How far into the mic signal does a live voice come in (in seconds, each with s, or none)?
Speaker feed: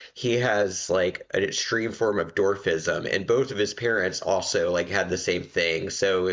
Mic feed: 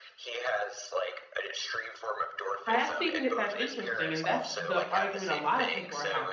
2.7 s